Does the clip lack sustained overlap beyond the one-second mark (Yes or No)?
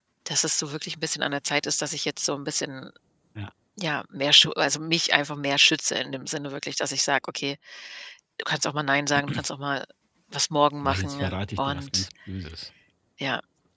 No